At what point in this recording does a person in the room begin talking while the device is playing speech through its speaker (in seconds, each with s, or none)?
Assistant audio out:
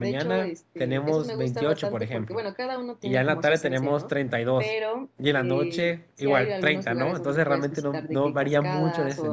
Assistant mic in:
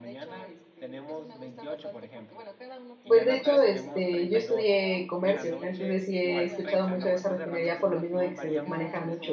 3.1 s